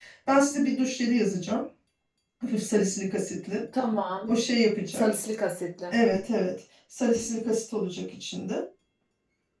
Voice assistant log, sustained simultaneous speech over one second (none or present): none